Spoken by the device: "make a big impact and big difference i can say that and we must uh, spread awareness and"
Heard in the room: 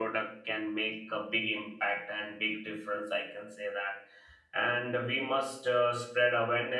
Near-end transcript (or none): none